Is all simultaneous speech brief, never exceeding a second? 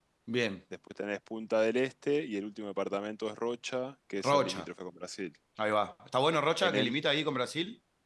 Yes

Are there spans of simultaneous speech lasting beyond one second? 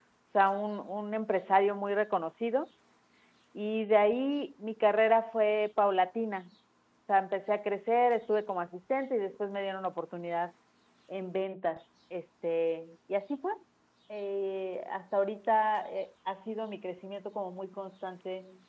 No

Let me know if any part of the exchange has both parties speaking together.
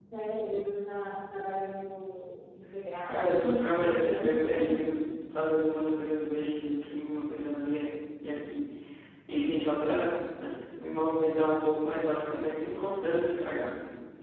Yes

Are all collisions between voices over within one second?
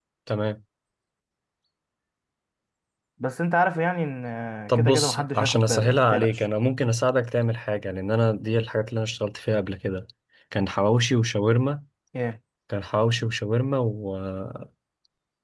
No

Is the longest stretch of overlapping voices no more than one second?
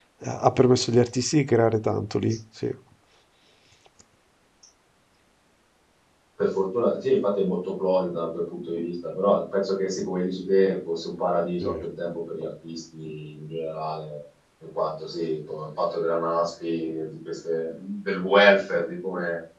Yes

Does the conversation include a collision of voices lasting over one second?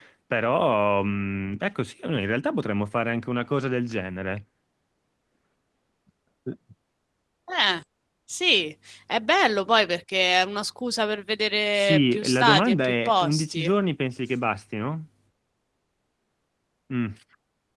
Yes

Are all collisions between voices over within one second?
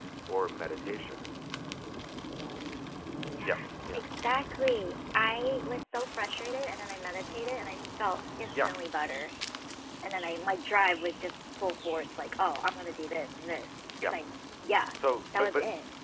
Yes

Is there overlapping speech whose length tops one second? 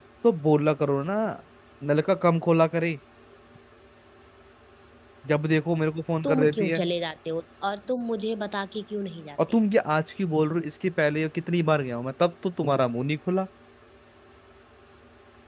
No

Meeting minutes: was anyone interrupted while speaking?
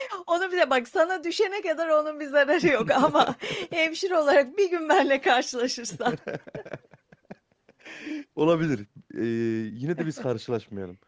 No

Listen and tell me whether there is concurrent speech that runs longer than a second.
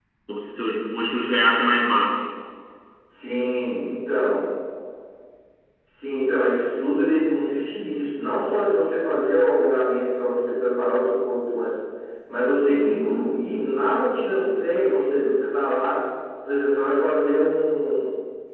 No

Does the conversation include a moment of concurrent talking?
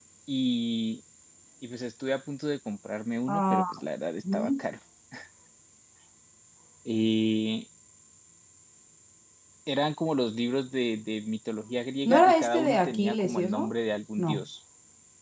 Yes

